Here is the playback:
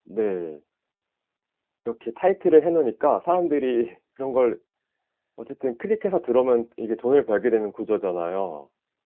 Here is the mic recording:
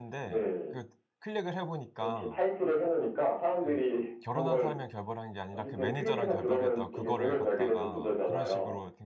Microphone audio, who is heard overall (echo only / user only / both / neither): both